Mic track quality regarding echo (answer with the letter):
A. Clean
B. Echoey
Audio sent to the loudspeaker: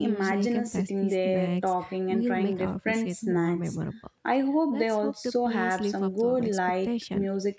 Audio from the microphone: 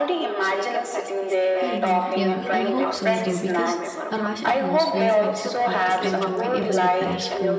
B